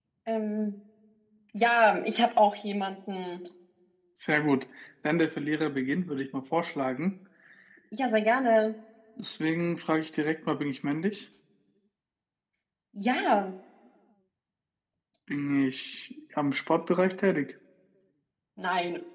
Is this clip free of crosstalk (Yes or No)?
Yes